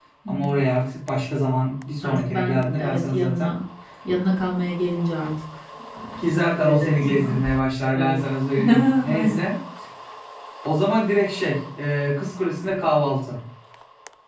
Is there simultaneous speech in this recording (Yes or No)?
Yes